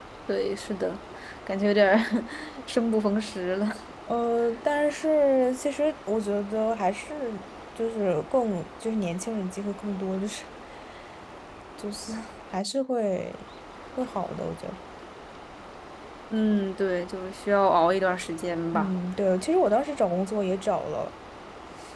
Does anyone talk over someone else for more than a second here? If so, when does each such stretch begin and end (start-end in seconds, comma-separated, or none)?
none